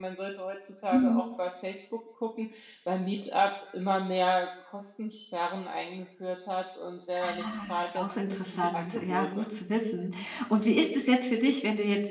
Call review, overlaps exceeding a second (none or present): present